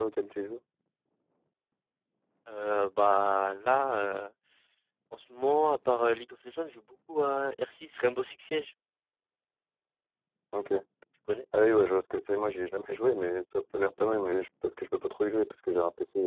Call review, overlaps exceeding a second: none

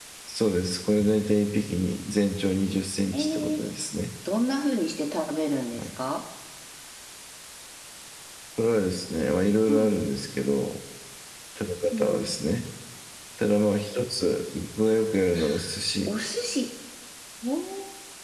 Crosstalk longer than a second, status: none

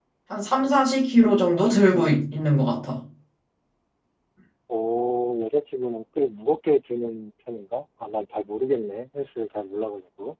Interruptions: none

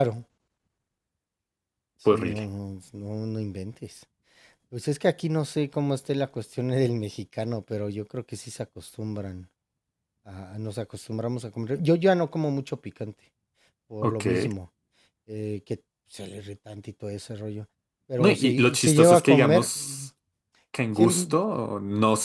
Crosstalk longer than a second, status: present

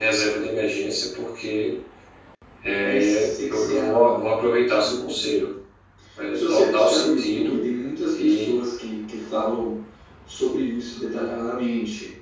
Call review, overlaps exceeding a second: present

